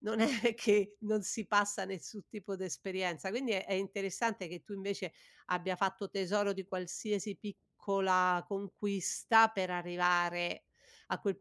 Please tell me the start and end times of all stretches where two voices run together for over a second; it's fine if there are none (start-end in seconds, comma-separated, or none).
none